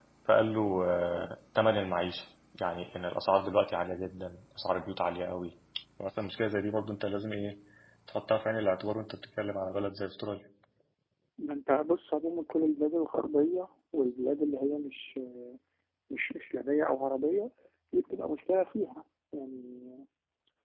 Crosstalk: none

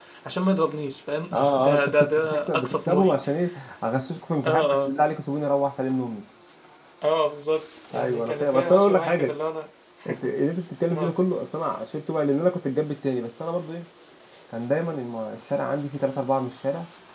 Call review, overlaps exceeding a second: present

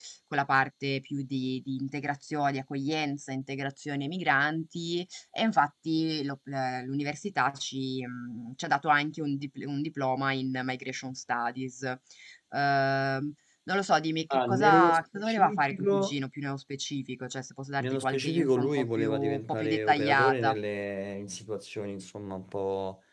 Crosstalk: present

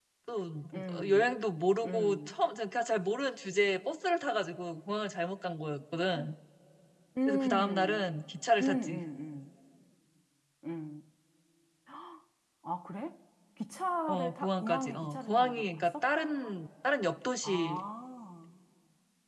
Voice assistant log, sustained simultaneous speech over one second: present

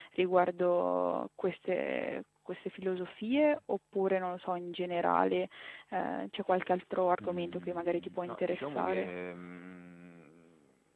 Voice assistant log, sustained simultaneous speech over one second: present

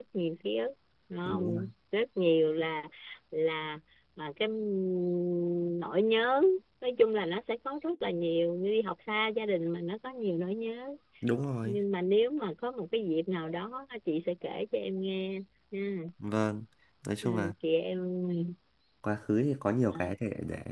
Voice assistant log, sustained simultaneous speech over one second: none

